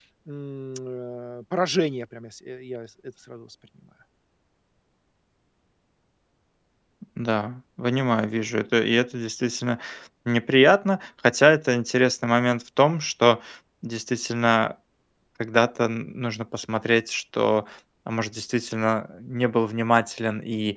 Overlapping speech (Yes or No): No